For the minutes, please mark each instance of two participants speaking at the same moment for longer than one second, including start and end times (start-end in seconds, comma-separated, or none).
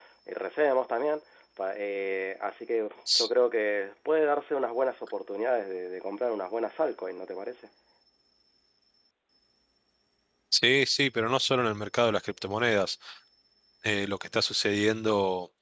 none